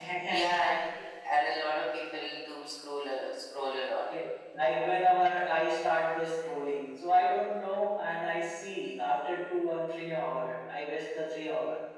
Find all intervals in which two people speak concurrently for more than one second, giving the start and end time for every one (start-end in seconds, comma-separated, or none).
none